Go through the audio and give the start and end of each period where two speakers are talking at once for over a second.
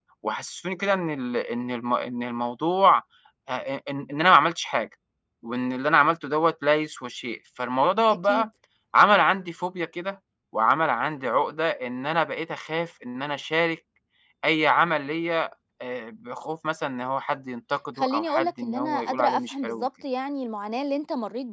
18.0-19.9

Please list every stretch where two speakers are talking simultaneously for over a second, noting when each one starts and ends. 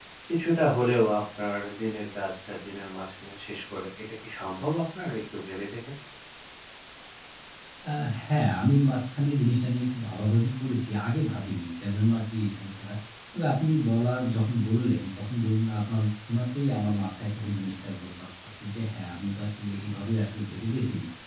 none

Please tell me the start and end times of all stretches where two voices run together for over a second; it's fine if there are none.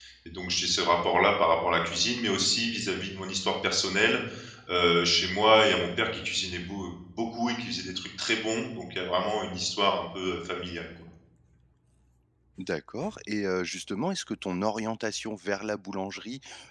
none

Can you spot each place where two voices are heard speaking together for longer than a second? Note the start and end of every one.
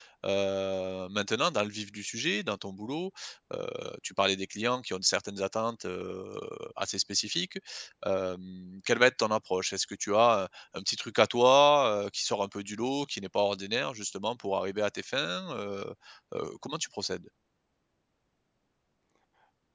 none

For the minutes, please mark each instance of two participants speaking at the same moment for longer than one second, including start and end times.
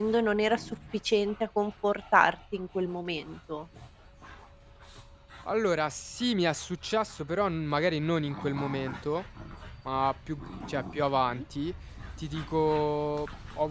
none

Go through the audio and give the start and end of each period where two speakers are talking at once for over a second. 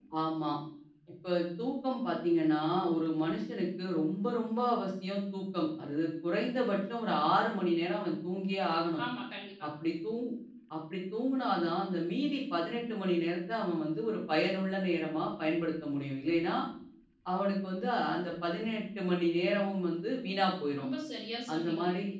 none

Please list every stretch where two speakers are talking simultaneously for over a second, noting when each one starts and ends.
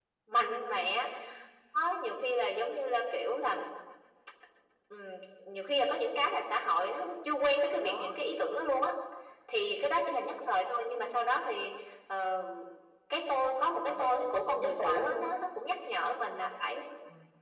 13.8-15.3

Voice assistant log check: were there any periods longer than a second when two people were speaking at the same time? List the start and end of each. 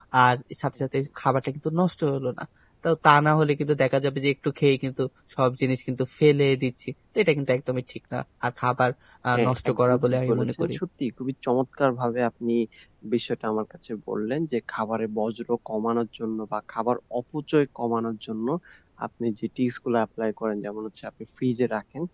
9.3-10.8

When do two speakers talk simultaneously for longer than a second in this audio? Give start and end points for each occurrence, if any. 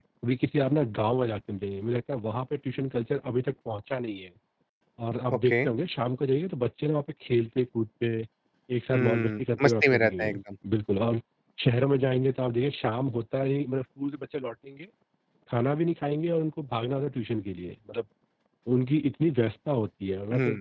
8.9-10.4

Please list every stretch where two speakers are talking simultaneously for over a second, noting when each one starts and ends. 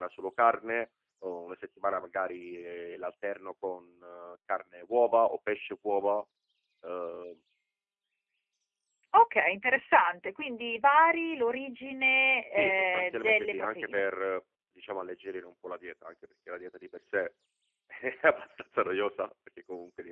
12.5-14.1

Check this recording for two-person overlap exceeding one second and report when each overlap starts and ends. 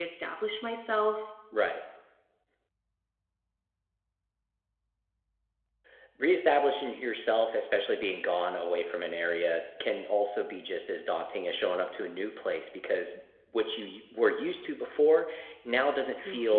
none

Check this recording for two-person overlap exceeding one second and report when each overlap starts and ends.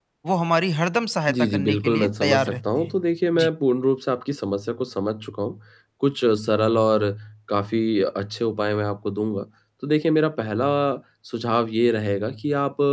1.3-2.9

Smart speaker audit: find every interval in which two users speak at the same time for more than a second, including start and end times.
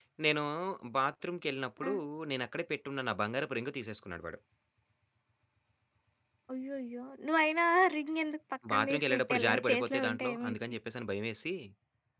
8.7-10.8

